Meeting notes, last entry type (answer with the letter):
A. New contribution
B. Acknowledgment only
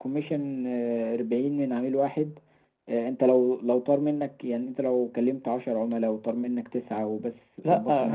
A